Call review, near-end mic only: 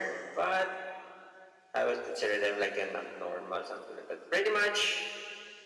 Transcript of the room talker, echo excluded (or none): none